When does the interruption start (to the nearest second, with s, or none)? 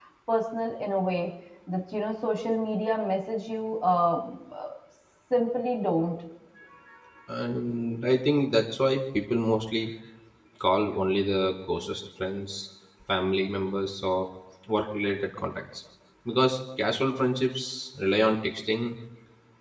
none